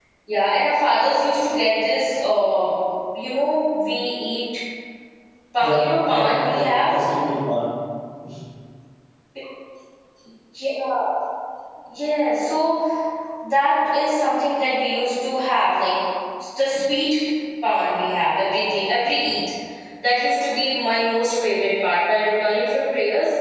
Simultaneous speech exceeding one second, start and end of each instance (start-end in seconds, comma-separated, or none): 5.6-6.9